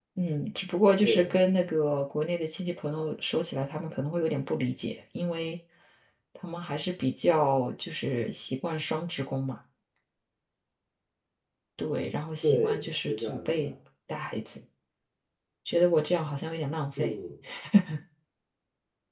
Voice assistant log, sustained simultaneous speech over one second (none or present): present